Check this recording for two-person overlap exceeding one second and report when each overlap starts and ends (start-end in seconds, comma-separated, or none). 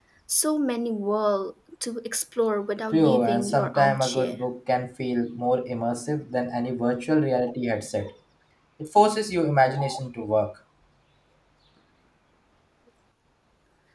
2.9-4.4